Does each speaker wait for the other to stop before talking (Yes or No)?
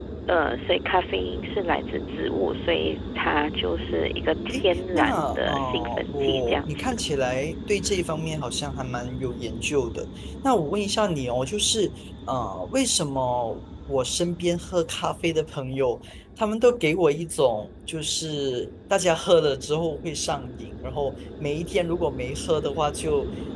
No